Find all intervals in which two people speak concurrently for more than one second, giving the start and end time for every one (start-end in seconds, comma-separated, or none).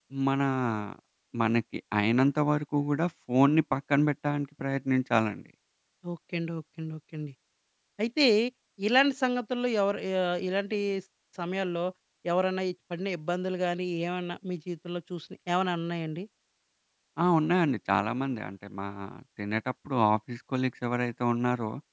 none